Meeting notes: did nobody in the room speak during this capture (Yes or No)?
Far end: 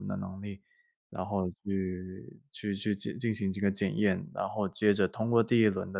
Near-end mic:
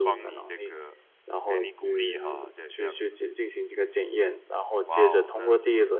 No